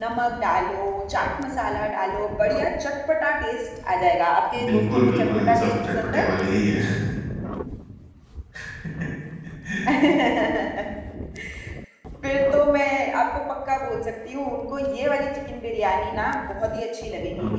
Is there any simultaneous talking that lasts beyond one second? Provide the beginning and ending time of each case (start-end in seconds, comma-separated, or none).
4.6-6.2